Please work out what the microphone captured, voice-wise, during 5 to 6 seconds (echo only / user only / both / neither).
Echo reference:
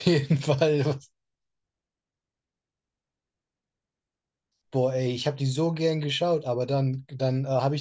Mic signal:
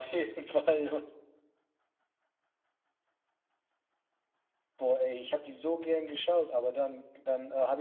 echo only